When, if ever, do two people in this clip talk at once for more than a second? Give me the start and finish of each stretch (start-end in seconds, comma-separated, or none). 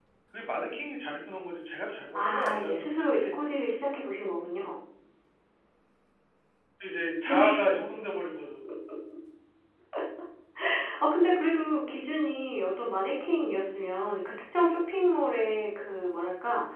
2.2-3.4